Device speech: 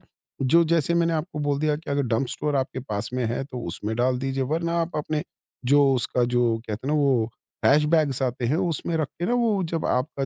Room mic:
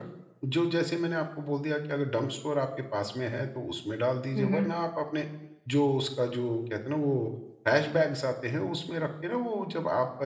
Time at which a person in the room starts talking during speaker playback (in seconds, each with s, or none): 4.3 s